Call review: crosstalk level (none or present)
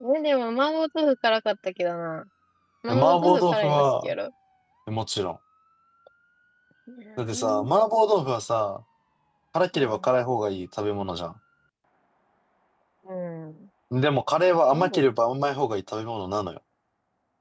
present